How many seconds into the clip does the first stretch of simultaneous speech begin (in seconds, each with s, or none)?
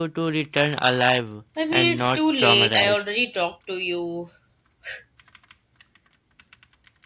1.6 s